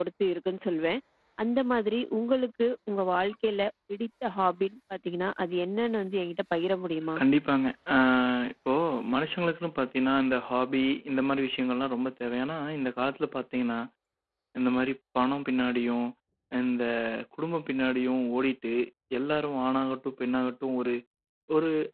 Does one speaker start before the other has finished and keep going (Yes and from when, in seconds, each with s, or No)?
No